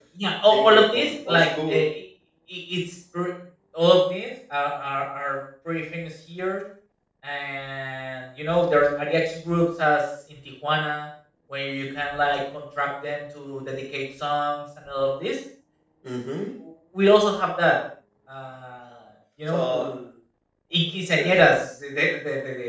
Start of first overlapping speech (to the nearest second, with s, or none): 1 s